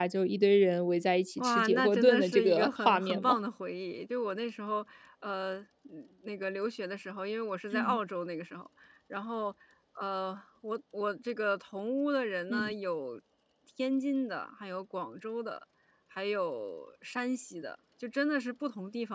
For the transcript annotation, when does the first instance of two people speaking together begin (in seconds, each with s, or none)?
1.4 s